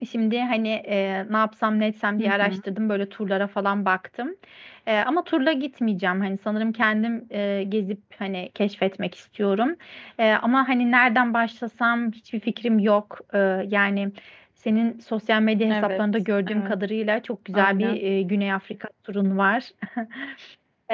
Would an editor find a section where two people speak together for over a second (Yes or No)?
No